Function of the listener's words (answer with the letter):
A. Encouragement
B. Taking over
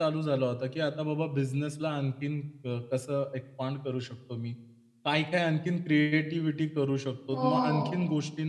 A